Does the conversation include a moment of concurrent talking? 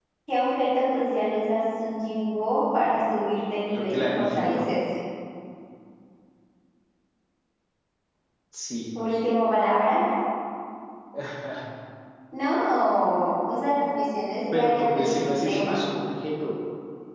Yes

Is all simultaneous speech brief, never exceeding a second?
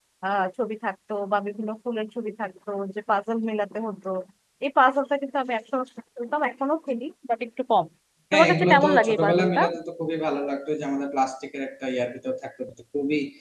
No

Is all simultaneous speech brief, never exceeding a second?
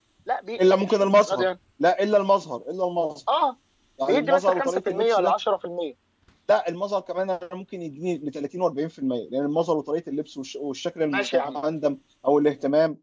No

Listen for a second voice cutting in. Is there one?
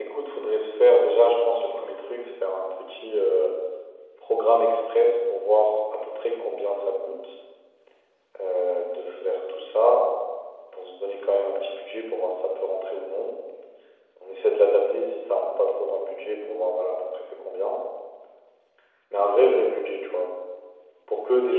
No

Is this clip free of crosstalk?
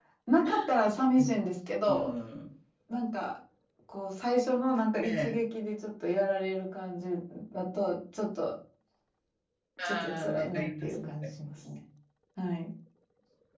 No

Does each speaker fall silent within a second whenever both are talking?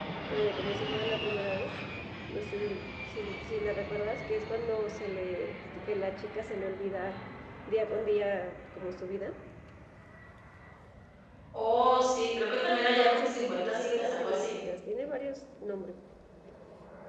No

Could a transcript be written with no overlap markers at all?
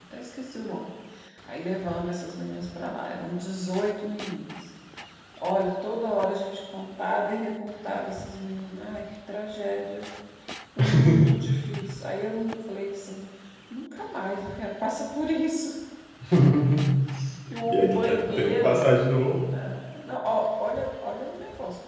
No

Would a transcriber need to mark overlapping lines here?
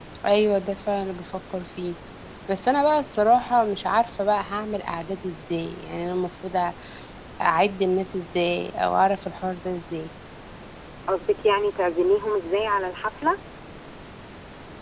No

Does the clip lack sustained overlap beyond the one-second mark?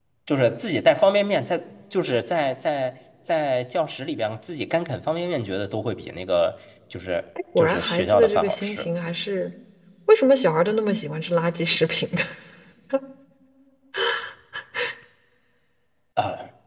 No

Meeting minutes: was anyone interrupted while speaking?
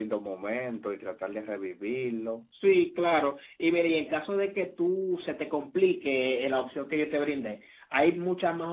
No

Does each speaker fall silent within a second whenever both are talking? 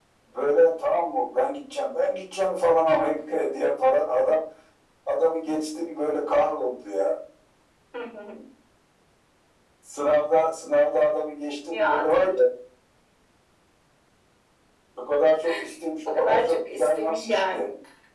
No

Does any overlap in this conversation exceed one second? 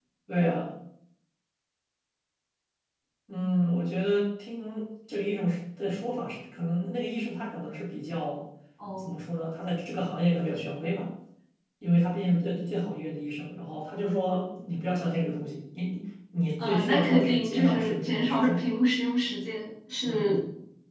Yes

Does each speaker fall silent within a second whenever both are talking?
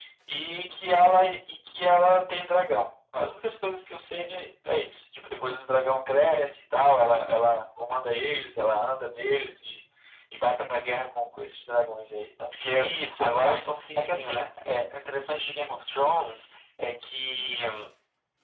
No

